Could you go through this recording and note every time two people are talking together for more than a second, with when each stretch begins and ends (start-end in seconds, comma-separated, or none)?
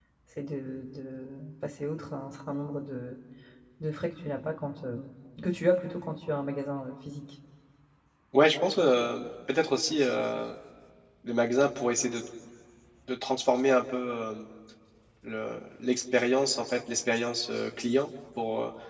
none